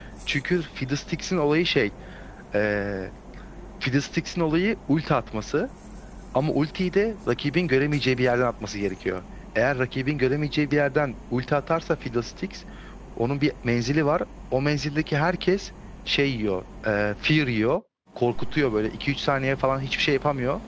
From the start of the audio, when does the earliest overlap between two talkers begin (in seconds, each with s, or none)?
none